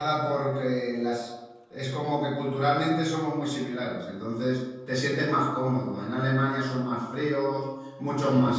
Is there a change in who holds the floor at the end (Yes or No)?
No